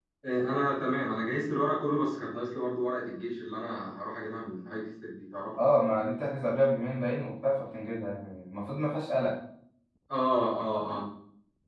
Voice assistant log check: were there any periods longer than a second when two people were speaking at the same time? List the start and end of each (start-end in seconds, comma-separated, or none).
none